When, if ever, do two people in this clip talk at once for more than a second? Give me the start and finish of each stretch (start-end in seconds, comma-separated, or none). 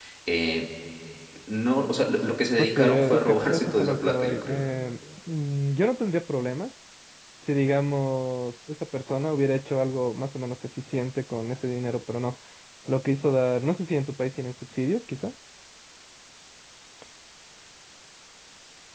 2.6-4.6